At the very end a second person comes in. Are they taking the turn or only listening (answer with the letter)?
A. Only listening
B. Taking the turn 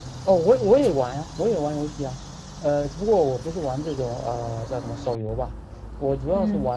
A